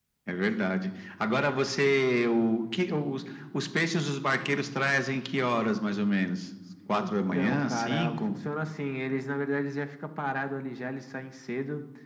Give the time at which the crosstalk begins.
6.9 s

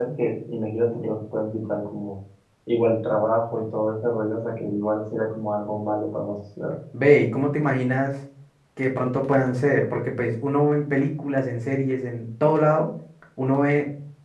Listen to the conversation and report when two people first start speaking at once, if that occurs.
none

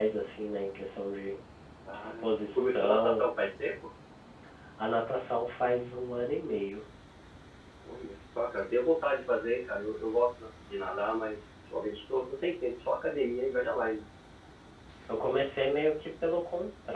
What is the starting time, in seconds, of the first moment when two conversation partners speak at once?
1.9 s

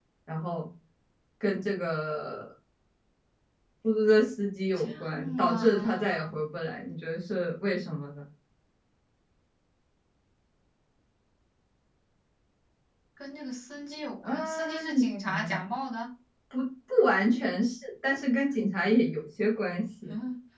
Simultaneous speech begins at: 4.9 s

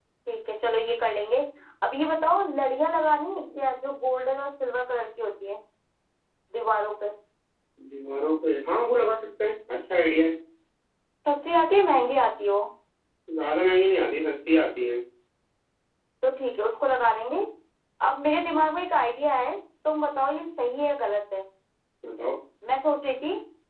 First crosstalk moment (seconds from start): none

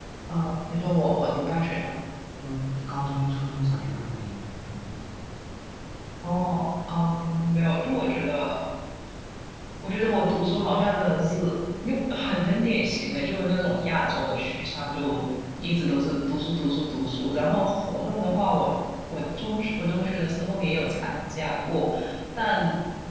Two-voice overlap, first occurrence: none

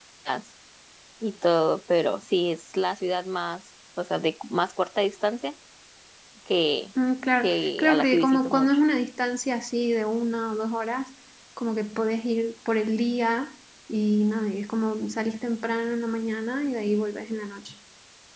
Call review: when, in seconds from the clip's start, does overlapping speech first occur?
7.4 s

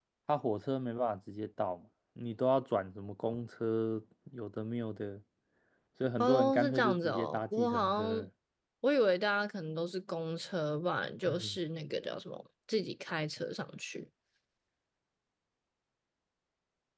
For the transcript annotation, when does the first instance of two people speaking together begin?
6.2 s

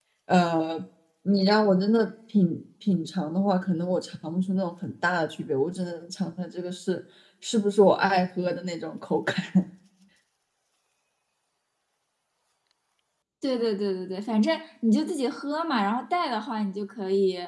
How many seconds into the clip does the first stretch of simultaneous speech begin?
none

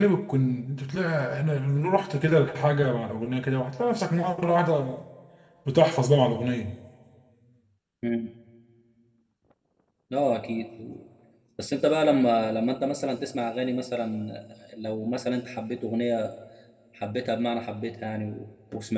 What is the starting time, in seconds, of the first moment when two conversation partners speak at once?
none

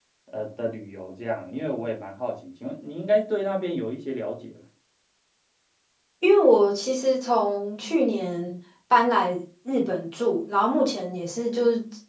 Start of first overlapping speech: none

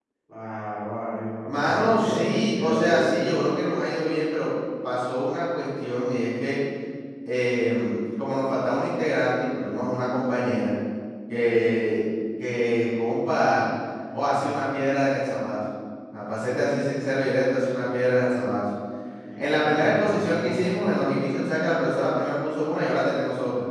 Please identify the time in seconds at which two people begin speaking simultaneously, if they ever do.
1.4 s

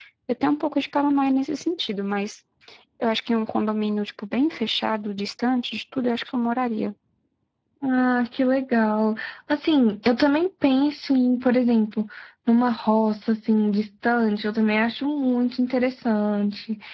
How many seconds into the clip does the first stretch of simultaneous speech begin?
none

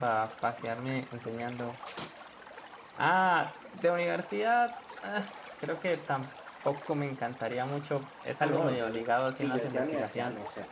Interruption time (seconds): 8.4 s

